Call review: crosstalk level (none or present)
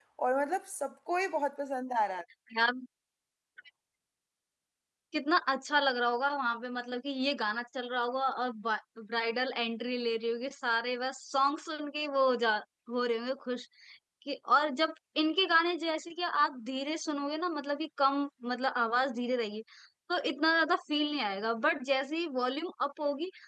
none